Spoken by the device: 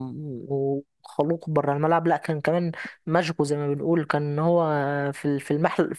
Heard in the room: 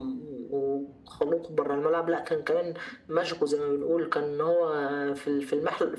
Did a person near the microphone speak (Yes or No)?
No